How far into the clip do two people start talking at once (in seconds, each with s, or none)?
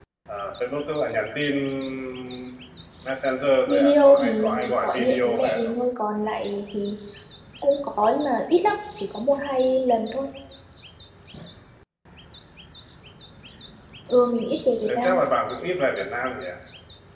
3.7 s